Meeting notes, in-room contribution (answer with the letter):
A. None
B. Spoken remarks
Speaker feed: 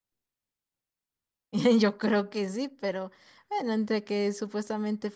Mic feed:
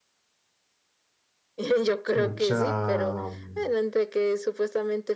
B